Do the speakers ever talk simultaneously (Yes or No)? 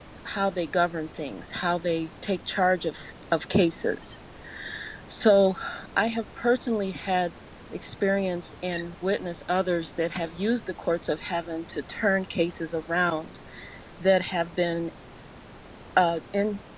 No